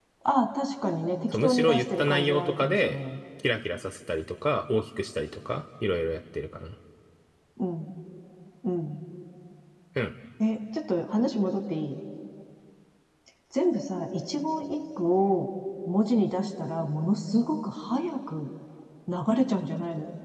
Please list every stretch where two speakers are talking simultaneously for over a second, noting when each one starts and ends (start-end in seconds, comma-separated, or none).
1.3-3.0